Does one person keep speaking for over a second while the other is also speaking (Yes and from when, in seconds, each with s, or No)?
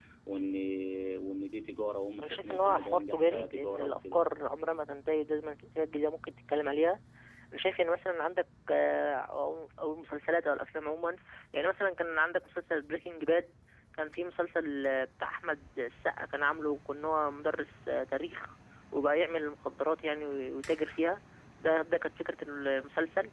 Yes, from 2.2 s